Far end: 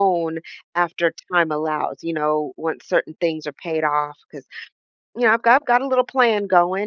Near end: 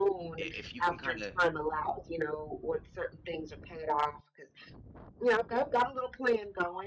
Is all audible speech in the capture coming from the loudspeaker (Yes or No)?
No